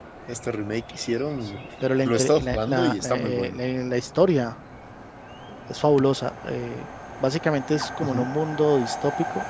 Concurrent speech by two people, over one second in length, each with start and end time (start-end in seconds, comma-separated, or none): 2.0-3.6